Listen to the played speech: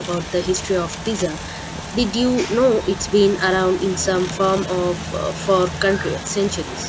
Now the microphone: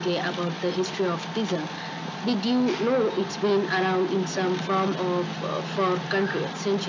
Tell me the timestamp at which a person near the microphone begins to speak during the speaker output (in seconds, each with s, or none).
none